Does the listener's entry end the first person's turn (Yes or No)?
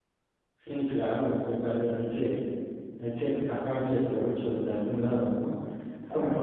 No